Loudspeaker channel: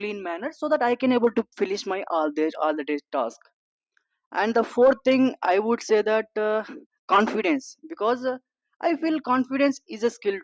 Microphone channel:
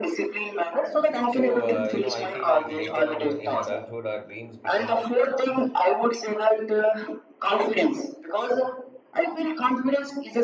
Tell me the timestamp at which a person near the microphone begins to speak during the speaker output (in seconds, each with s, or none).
1.3 s